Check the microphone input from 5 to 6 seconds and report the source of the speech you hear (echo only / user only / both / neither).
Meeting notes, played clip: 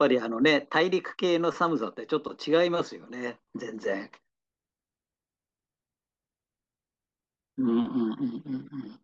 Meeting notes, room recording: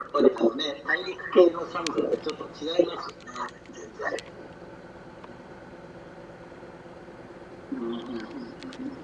neither